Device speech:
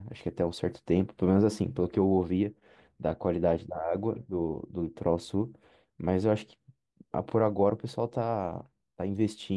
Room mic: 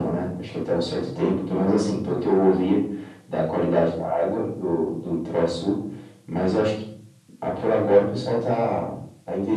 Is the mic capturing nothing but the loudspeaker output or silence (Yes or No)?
Yes